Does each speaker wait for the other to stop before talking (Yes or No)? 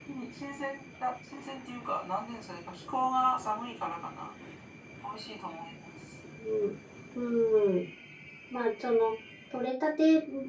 Yes